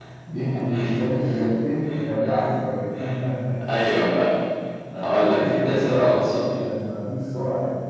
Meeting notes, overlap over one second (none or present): present